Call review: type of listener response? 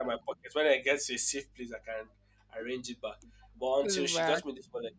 listening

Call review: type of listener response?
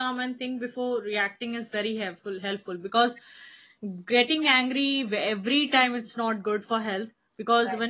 listening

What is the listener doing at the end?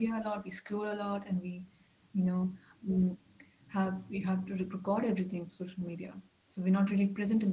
listening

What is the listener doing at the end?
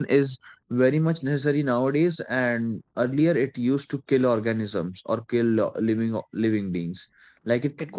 taking over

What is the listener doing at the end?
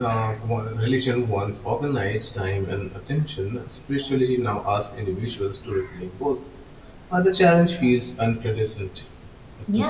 taking over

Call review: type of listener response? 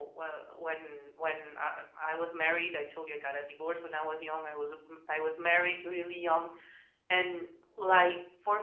listening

